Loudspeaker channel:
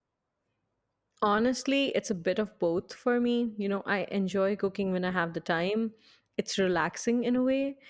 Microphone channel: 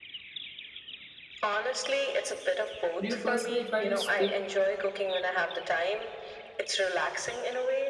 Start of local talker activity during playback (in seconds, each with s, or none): 3.0 s